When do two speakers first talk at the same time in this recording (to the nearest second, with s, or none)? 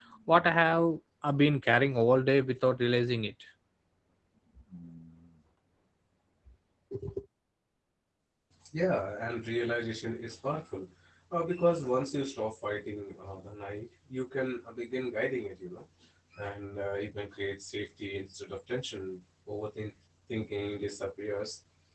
none